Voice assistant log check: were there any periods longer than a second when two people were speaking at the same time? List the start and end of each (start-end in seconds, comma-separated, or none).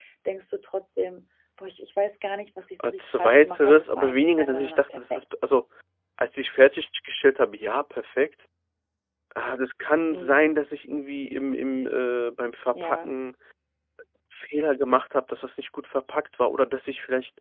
2.8-5.2